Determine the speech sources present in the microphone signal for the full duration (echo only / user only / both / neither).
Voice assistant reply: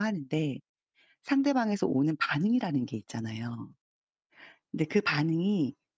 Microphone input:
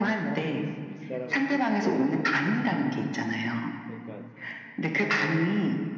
both